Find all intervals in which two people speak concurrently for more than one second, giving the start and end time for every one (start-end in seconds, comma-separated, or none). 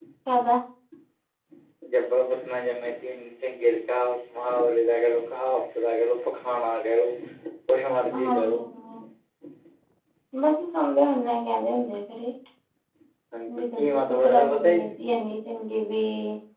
13.6-14.9